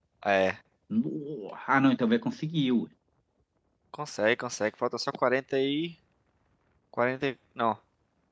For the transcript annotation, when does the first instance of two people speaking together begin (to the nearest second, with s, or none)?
none